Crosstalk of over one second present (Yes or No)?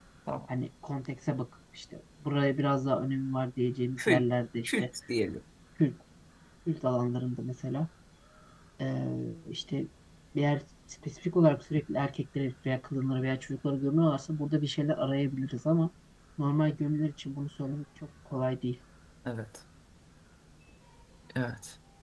No